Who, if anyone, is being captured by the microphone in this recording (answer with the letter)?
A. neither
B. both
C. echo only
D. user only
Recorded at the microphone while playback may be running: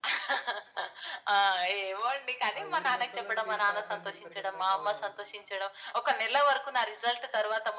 B